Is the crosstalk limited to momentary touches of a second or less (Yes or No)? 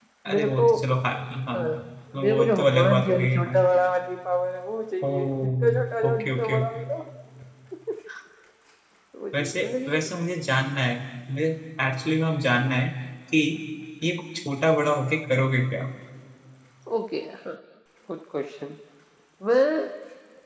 No